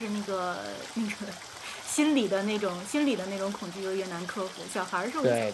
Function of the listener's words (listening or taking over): taking over